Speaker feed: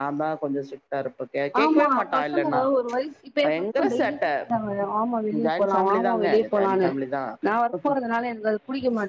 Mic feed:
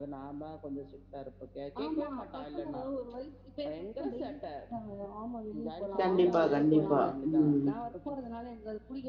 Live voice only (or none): கண்டிப்பா கண்டிப்பா ம்